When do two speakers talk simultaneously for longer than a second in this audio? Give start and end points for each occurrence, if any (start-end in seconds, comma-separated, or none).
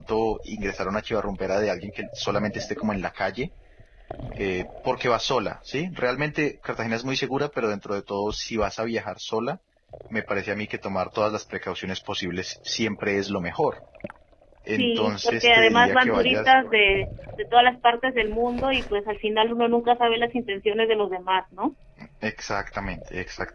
14.7-16.5